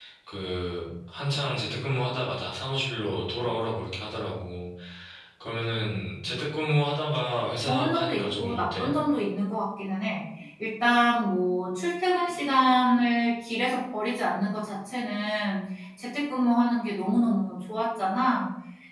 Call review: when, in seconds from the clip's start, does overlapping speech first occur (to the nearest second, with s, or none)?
8 s